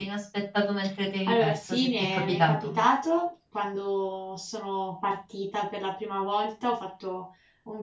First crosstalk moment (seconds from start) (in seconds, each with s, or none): 1.3 s